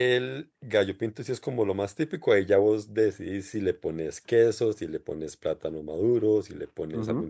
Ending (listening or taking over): taking over